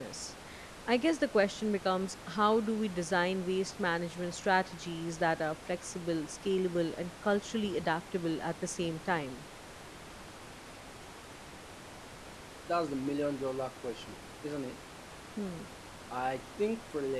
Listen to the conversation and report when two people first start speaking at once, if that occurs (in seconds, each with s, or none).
none